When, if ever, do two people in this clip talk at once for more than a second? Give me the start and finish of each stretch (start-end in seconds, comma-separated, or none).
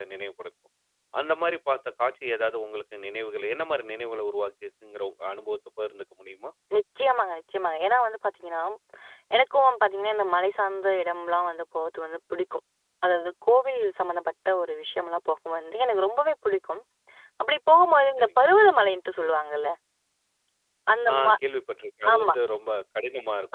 none